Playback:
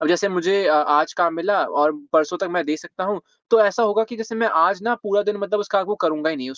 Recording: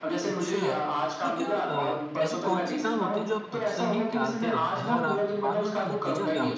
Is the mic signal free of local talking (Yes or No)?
No